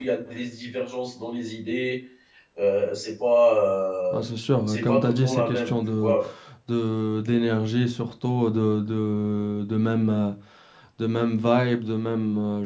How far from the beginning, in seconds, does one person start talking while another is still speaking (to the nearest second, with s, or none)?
5 s